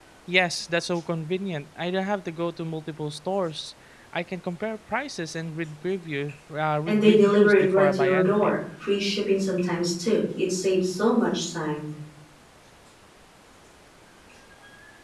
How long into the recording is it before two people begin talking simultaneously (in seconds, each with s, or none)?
6.9 s